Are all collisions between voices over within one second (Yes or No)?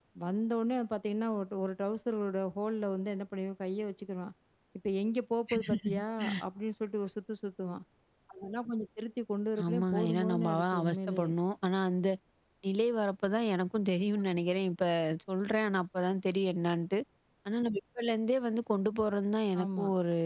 No